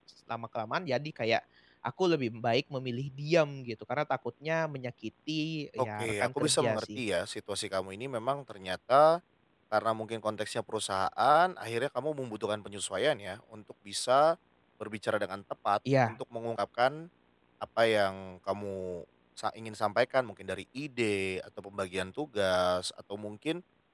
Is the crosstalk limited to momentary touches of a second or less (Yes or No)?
No